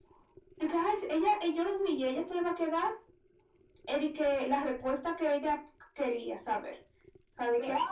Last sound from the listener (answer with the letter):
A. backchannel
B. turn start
A